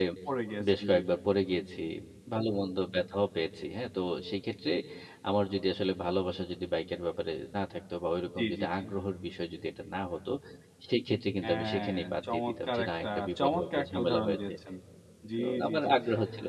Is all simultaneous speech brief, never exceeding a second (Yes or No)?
No